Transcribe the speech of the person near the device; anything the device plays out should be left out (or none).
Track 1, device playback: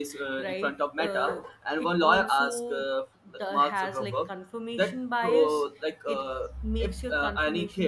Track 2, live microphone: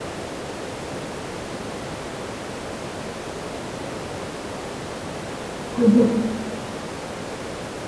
Mm-hmm.